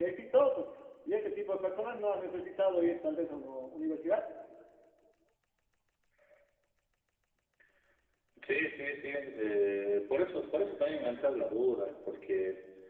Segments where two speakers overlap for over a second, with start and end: none

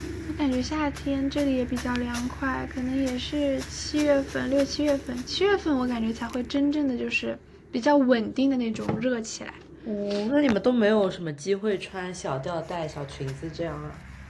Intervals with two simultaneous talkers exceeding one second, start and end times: none

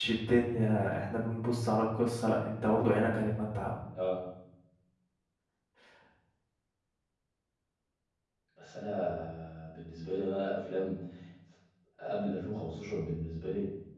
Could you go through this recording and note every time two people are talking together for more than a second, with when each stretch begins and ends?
none

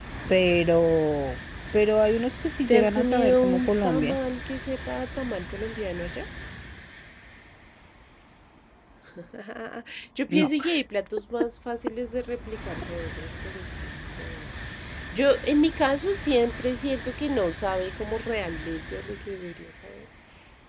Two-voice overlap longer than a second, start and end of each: 2.7-4.2

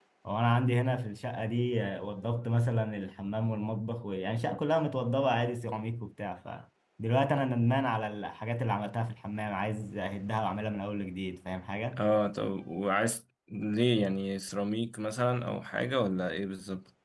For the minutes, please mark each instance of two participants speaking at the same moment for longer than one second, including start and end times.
none

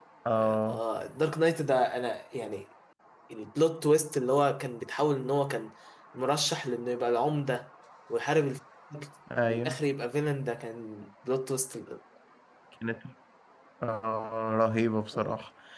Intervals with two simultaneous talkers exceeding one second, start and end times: none

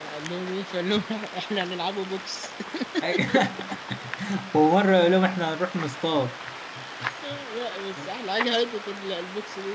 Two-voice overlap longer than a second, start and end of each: none

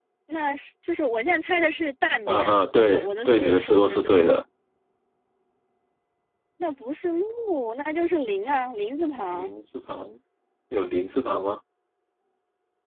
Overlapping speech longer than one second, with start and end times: 2.3-4.1

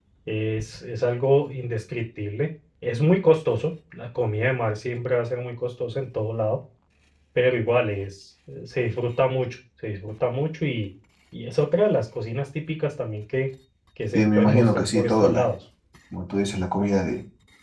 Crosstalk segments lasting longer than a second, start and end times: 14.1-15.4

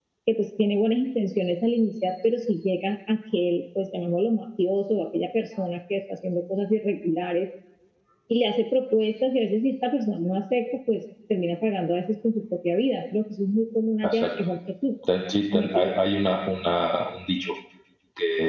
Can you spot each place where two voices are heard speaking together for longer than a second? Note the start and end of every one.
none

